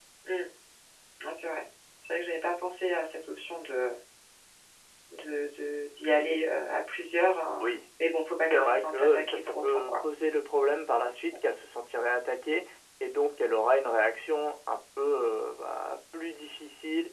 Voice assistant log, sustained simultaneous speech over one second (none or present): present